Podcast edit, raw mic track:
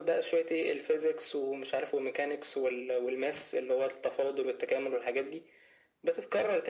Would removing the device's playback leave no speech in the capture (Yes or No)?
Yes